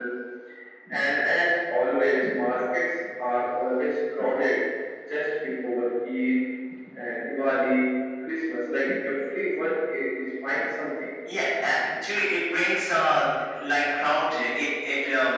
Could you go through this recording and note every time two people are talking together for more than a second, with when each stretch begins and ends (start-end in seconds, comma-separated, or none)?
none